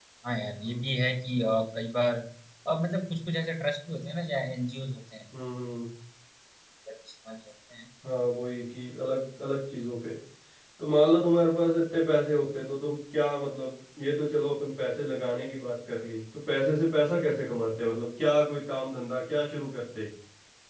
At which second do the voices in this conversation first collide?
none

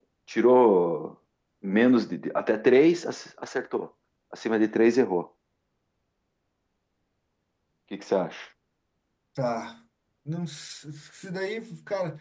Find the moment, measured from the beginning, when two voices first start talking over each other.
none

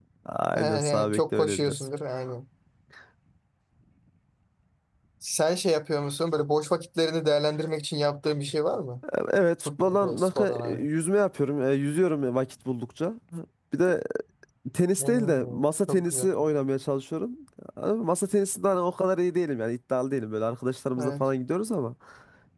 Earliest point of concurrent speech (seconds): 1 s

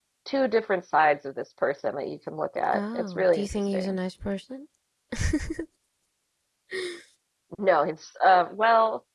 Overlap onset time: 3 s

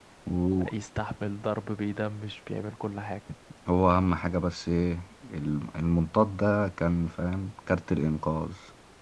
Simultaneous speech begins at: none

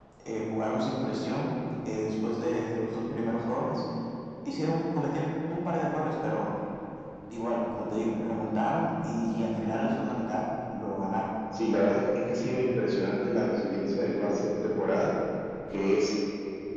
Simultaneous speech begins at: none

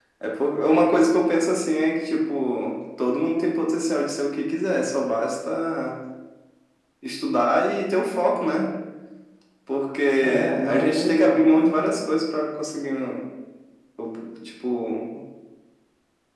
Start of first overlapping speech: 10 s

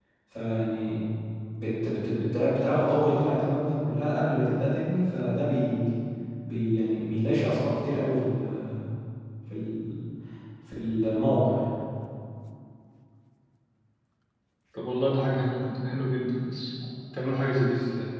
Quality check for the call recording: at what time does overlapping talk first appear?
none

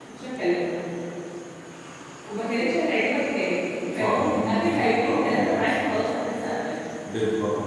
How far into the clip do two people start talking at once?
4 s

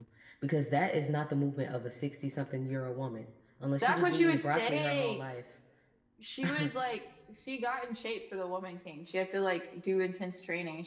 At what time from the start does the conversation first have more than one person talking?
4 s

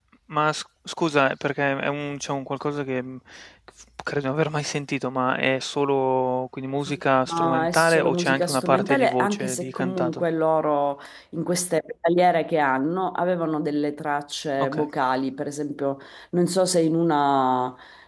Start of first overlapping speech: 7 s

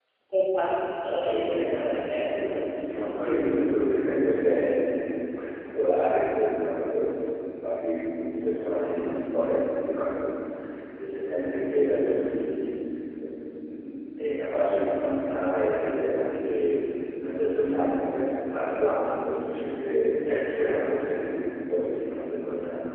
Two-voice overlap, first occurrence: 1 s

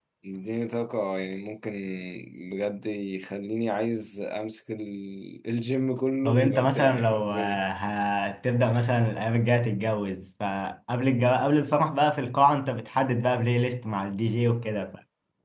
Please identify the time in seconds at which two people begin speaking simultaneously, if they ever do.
6 s

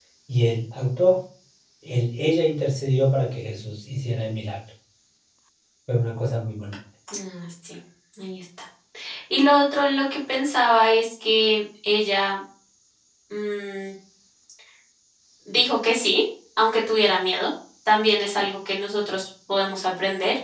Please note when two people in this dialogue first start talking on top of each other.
none

